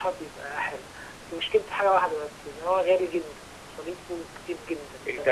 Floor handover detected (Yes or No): Yes